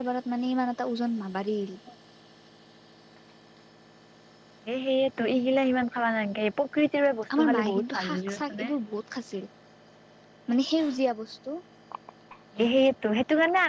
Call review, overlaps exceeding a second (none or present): present